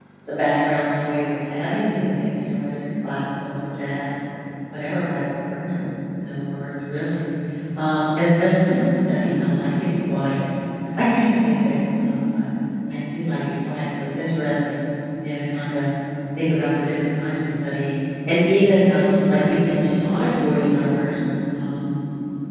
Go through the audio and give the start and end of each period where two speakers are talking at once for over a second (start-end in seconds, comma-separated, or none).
none